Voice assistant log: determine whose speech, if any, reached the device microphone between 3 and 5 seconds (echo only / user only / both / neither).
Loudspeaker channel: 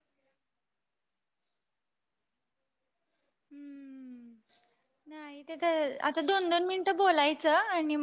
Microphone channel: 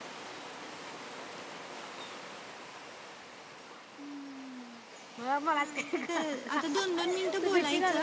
echo only